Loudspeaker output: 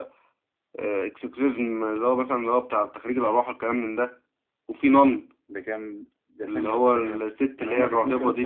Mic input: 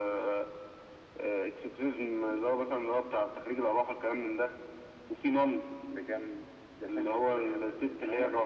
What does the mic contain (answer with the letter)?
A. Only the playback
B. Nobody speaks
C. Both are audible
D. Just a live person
A